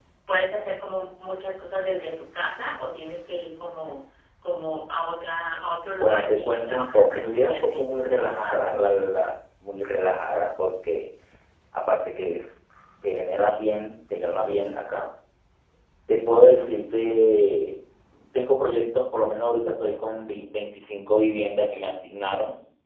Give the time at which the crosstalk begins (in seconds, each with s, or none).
6.0 s